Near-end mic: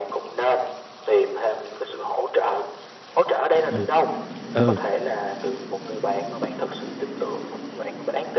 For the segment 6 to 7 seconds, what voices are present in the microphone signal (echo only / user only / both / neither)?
echo only